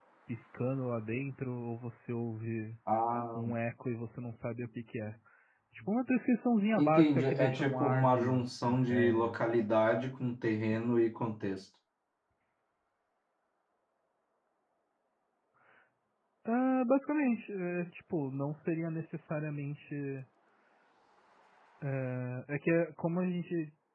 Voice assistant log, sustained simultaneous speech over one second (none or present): present